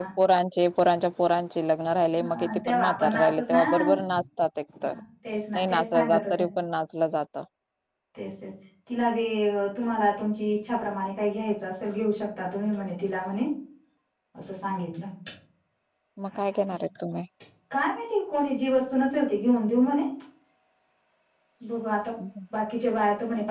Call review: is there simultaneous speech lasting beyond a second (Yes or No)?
Yes